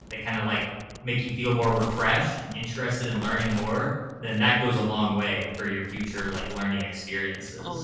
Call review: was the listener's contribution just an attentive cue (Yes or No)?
No